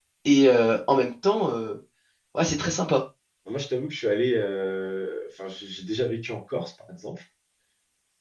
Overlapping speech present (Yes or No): No